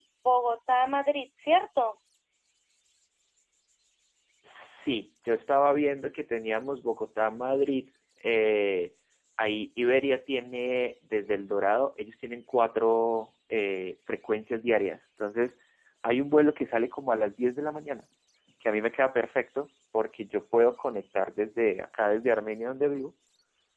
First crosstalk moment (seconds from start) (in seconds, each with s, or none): none